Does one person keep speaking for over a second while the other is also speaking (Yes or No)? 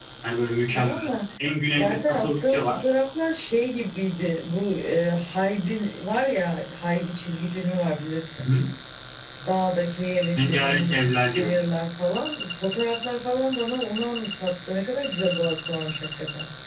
Yes